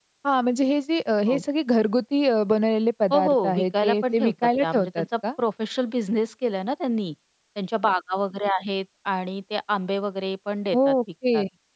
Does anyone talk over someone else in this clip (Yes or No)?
Yes